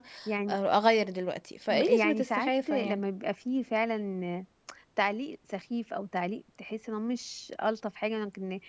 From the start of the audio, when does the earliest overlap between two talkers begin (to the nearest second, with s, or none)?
2 s